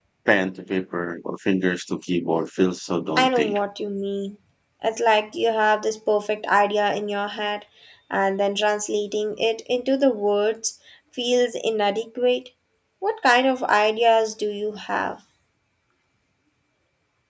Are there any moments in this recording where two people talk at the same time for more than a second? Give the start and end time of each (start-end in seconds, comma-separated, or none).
none